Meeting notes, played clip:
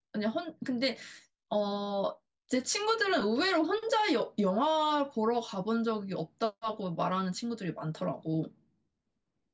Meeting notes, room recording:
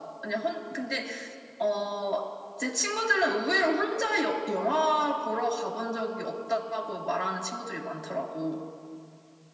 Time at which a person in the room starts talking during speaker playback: none

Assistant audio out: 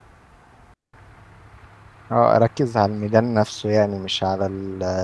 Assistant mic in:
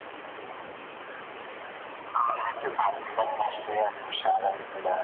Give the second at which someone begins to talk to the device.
none

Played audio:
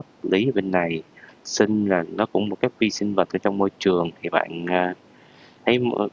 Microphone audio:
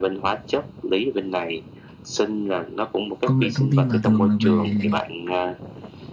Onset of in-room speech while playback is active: 3.2 s

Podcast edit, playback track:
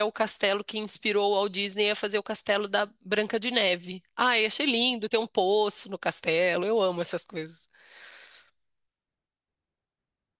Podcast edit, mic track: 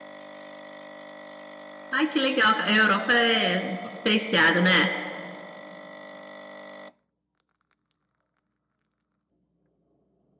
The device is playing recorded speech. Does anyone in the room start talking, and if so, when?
1.9 s

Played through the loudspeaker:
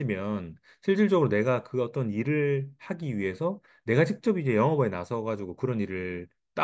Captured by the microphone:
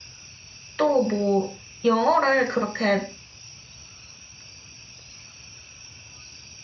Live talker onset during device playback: 0.8 s

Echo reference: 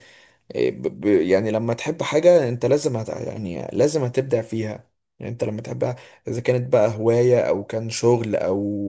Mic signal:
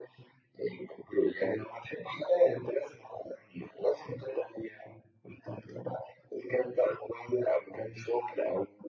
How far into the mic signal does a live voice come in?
none

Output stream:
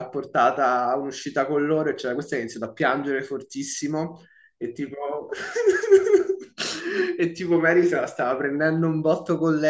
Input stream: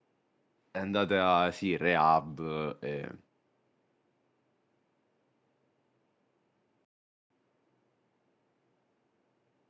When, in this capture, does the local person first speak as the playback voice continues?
0.7 s

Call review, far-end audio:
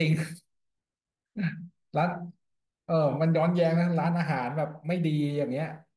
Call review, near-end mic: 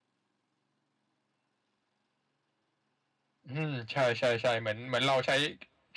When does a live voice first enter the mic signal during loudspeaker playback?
3.5 s

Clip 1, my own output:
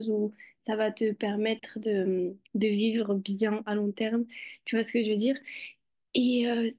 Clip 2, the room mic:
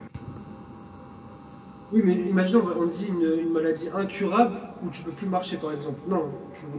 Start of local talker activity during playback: 1.9 s

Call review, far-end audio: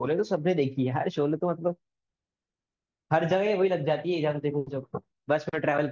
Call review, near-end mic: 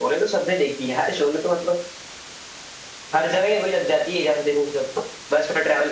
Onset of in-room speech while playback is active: none

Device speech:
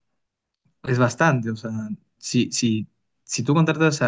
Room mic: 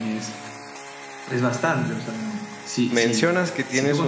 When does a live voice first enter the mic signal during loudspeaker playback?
2.9 s

